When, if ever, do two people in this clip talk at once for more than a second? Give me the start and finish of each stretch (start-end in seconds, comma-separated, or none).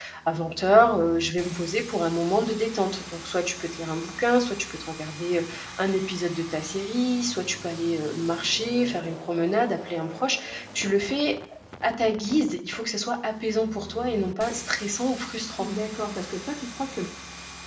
none